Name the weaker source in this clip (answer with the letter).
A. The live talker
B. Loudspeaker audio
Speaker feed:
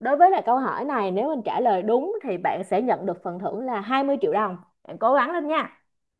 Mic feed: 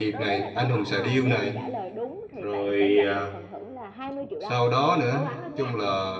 B